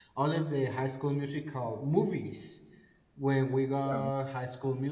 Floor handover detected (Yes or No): No